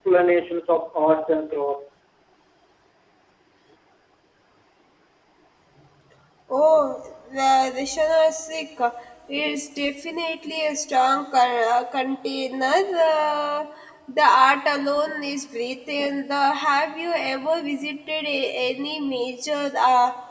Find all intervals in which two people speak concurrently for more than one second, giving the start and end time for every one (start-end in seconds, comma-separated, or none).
none